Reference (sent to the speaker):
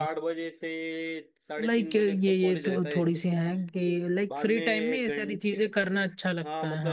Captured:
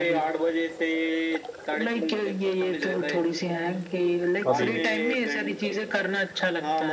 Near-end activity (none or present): present